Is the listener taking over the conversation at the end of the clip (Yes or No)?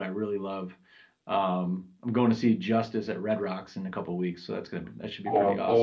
Yes